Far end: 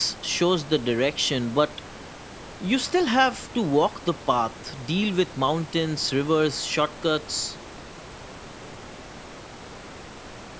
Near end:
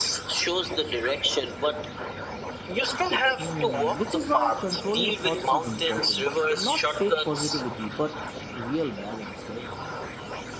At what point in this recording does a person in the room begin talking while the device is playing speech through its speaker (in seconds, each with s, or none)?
3.4 s